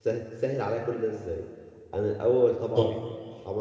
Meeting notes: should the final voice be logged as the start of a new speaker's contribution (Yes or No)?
No